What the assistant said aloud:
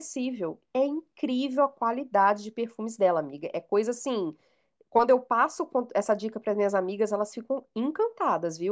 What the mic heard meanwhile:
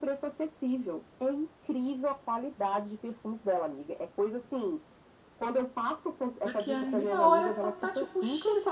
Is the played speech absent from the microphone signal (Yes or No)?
No